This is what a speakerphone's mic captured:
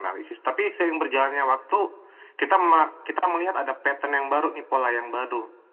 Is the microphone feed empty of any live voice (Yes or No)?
Yes